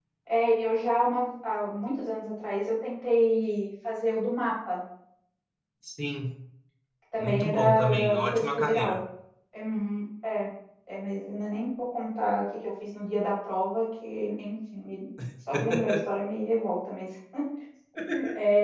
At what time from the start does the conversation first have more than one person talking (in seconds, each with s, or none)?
7.2 s